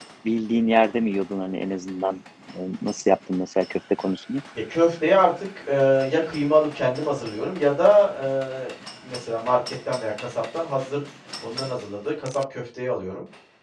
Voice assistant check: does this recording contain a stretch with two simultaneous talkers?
No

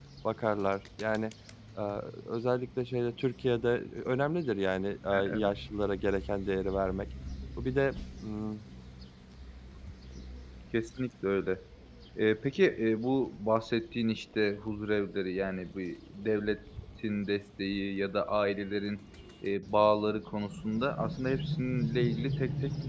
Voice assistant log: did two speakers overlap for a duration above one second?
No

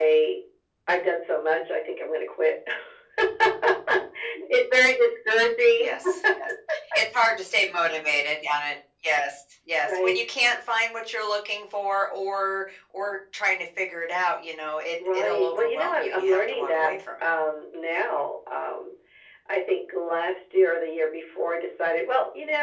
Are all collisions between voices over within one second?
No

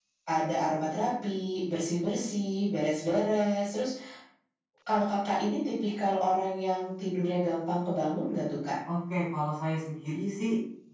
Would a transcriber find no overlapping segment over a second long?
Yes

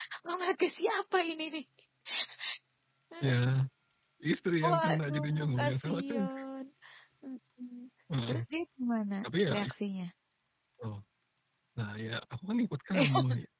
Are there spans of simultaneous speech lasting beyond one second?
Yes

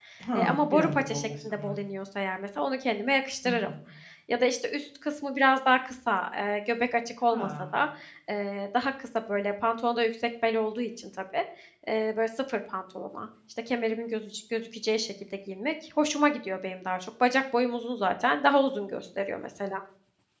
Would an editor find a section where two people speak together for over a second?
Yes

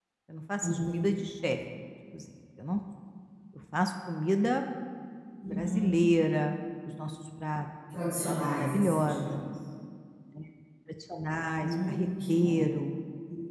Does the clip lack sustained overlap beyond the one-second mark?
No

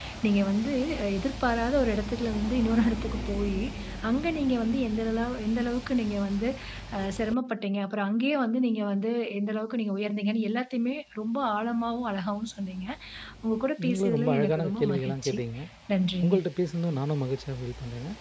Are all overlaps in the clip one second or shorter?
No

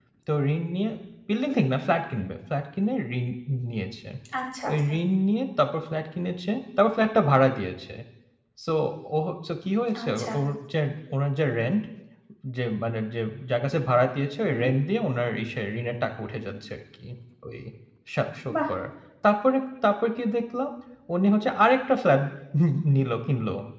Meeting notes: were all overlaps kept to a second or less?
Yes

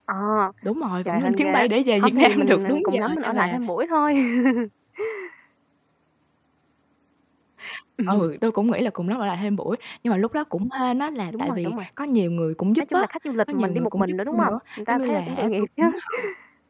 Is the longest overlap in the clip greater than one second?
Yes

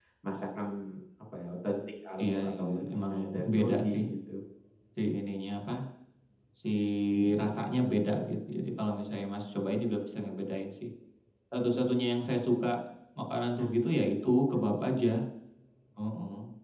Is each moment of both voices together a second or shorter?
No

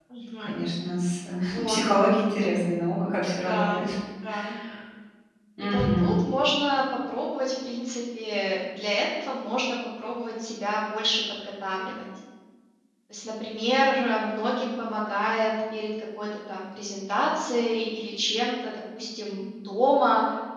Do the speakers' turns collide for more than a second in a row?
No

